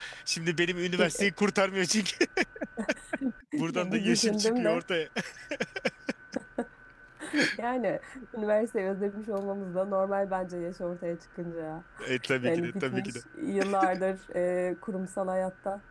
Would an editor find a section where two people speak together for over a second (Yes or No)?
Yes